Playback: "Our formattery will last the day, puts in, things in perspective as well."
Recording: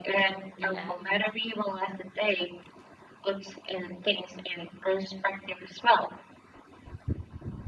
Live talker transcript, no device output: Yeah.

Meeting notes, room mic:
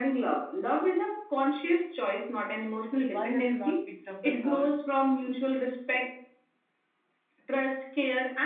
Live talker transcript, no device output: why have you not picked up the call

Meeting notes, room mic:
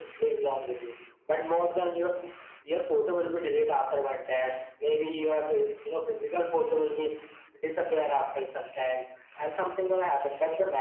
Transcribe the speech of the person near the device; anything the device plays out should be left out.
none

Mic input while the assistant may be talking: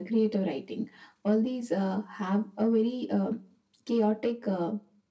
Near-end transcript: none

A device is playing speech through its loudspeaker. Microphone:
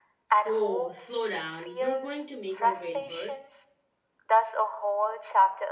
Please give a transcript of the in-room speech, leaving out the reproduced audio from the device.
Oh, slow down. You're going to make my brain hurt.

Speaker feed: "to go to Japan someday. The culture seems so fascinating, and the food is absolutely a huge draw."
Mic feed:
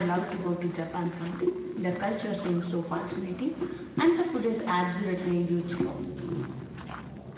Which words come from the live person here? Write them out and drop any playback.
none

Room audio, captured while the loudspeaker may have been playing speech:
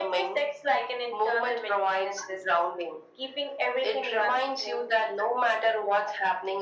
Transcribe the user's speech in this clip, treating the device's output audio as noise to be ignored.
none

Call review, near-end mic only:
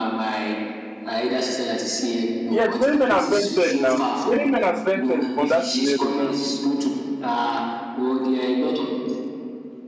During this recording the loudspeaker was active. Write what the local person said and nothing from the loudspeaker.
yeah, many men have spent ten now. Many men have spent ten on that scenario now.

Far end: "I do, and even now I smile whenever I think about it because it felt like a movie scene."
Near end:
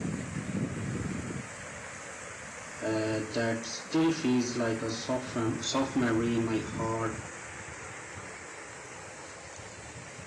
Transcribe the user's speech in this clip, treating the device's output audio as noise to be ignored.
uh, that still feels like a soft, mem- soft memory in my heart.

